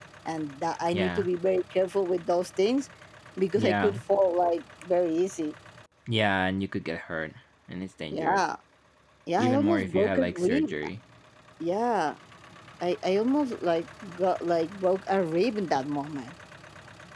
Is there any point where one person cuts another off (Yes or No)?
Yes